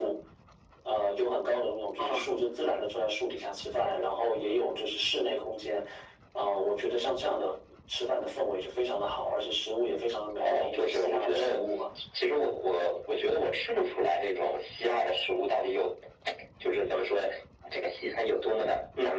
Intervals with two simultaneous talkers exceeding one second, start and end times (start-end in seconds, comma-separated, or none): 10.4-11.7